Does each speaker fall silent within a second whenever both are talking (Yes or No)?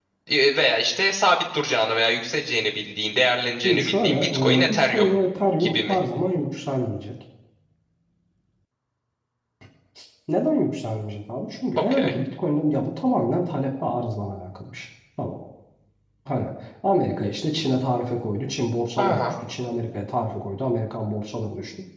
No